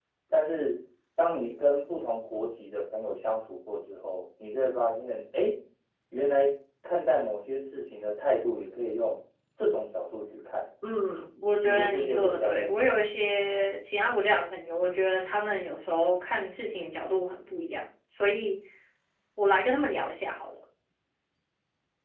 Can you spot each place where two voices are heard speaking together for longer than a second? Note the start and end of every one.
11.6-12.9

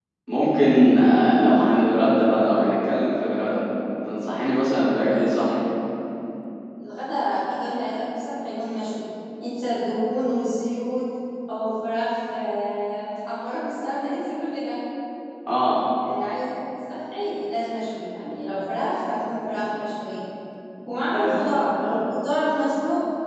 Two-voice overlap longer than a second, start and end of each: none

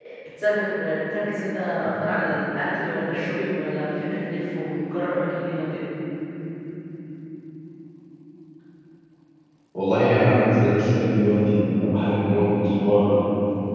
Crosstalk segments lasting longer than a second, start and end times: none

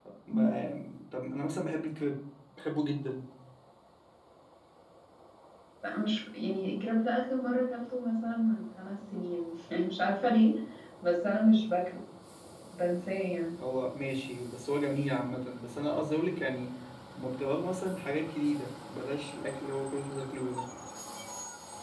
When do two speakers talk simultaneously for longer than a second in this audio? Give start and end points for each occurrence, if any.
none

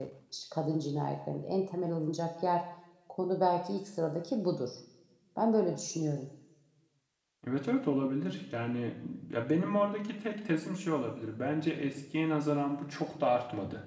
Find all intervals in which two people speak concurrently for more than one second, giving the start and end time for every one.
none

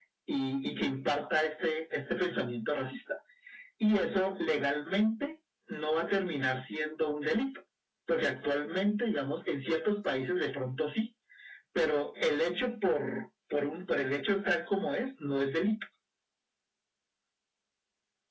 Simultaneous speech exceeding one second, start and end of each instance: none

